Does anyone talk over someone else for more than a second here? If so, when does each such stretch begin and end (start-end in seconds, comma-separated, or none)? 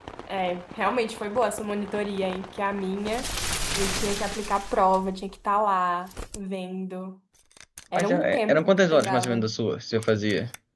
8.0-9.4